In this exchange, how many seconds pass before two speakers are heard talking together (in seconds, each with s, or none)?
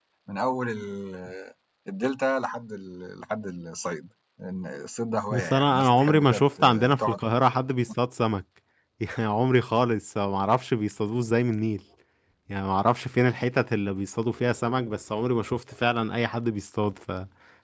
5.3 s